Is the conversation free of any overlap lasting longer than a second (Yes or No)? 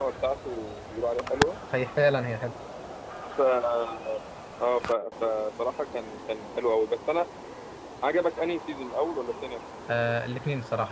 Yes